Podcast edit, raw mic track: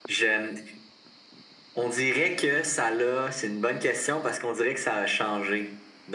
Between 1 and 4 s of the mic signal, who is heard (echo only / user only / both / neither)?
echo only